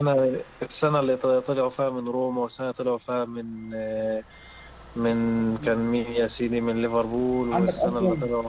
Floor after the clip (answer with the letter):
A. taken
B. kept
A